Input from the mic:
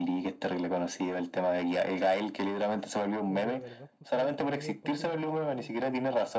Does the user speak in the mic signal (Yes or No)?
Yes